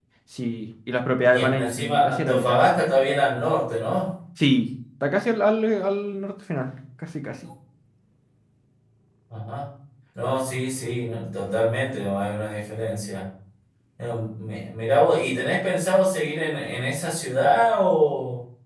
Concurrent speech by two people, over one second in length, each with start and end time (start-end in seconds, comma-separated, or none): 1.3-2.6